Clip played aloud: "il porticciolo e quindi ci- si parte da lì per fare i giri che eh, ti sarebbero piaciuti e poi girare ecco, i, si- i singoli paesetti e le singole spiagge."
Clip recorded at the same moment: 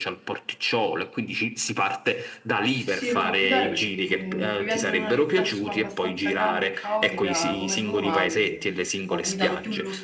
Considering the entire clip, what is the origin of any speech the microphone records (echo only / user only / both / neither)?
both